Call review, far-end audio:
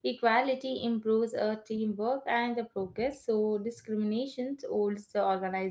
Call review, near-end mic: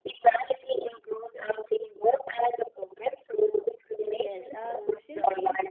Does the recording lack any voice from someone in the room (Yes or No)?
No